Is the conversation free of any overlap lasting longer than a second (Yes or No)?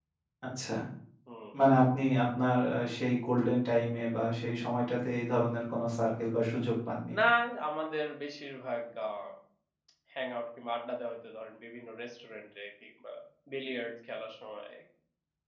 Yes